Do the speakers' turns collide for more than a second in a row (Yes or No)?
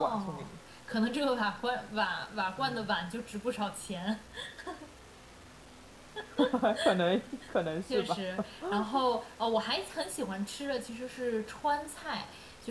No